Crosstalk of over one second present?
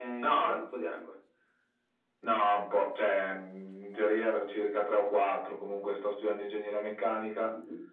No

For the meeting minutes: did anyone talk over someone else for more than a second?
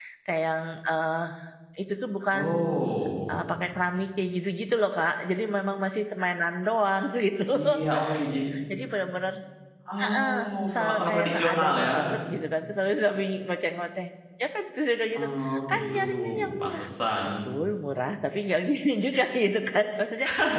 Yes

